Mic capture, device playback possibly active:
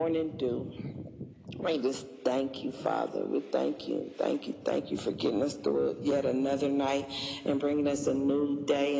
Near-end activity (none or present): none